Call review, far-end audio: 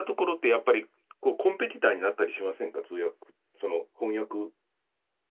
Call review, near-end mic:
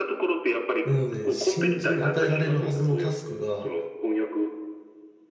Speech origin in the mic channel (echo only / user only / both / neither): both